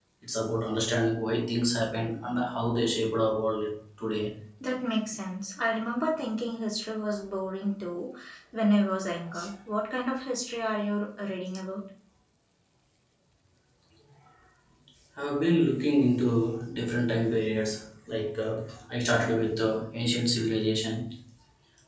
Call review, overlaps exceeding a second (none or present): none